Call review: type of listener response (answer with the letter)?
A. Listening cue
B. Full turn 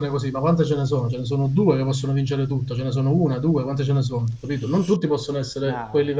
A